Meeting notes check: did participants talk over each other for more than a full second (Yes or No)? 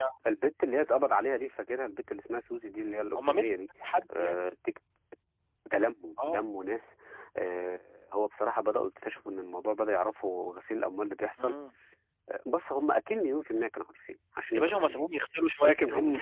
No